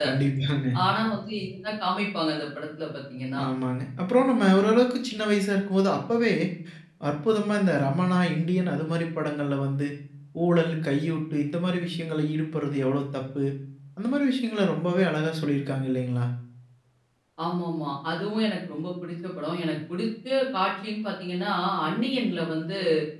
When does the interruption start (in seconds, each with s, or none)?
none